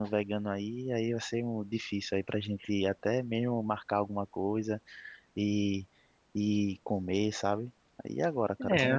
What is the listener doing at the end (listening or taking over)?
taking over